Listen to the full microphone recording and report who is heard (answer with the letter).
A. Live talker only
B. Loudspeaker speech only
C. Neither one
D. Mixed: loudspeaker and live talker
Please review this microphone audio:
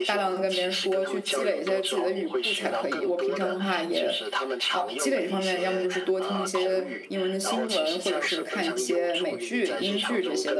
D